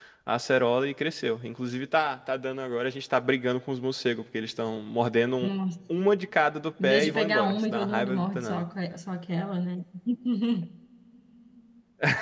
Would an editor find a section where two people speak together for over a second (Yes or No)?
Yes